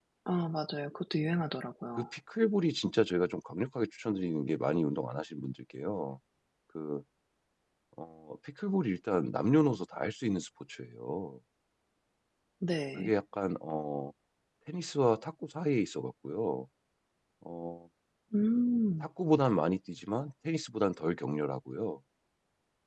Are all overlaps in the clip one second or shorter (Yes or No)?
Yes